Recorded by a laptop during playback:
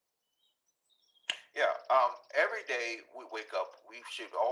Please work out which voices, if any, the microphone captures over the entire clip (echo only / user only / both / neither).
echo only